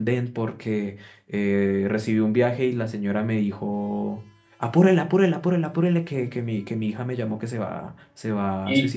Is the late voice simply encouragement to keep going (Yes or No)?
No